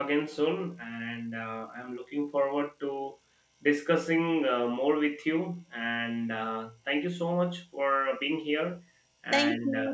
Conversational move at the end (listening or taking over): taking over